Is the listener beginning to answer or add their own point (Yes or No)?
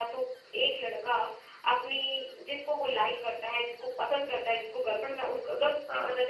No